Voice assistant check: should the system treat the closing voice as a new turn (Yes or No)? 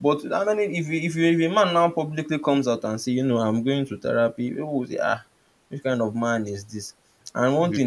No